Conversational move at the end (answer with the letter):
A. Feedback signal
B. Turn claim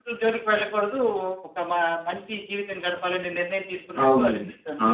B